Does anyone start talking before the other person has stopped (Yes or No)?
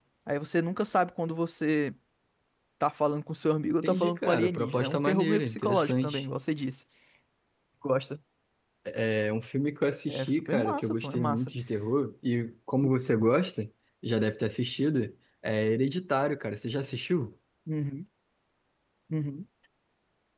Yes